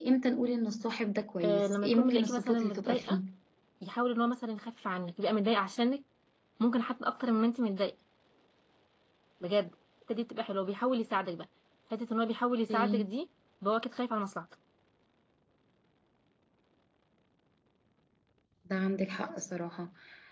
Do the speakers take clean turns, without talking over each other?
No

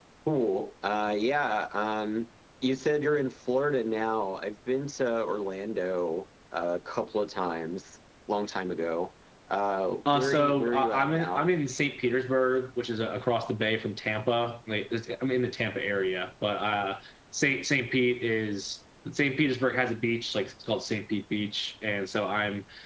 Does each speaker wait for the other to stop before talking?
No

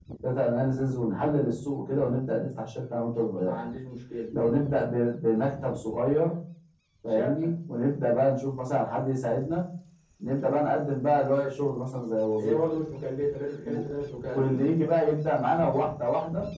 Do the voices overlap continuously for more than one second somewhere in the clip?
No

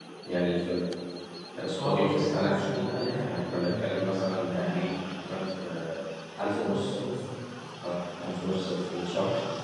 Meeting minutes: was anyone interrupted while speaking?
Yes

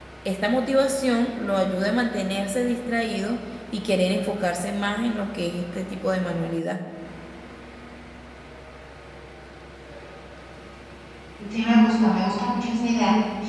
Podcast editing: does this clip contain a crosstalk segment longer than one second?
No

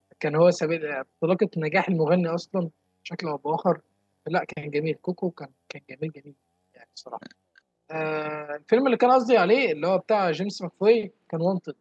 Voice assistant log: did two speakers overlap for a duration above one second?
No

